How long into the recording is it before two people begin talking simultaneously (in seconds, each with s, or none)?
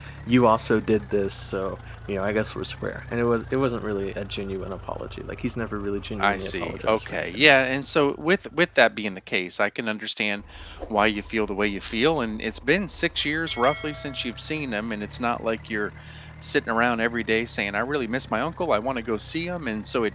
6.2 s